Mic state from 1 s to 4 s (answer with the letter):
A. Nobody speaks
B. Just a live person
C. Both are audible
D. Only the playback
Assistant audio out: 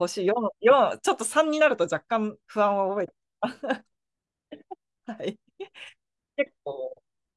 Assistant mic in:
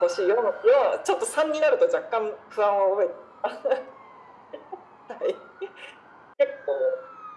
D